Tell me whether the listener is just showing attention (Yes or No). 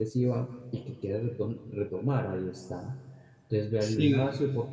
Yes